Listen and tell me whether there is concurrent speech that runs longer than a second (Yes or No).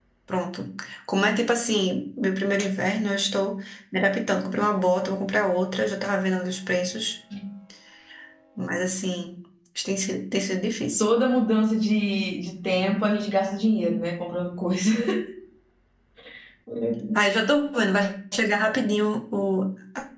No